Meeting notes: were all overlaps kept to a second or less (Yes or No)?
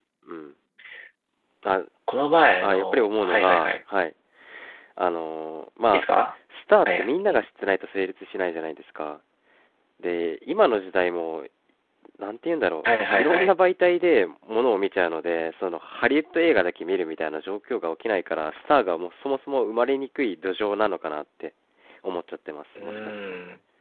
No